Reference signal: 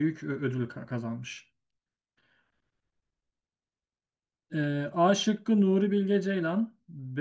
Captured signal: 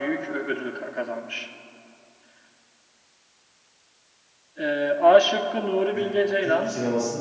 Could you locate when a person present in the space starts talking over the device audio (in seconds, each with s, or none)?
5.9 s